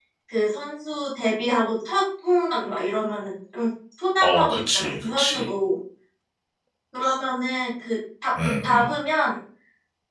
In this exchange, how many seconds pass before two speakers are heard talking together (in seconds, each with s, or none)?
4.2 s